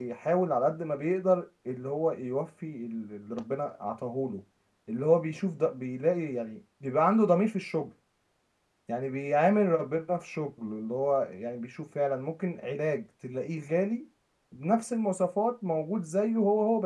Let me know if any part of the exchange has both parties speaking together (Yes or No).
No